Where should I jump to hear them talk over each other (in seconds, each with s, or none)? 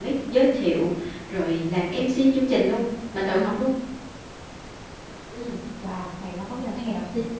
none